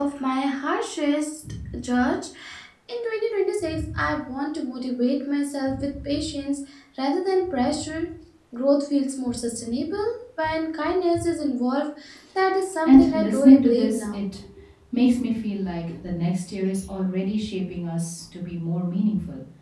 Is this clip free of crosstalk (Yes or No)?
No